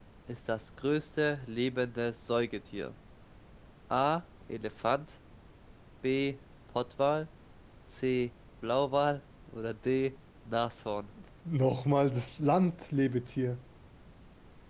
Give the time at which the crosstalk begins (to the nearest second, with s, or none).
none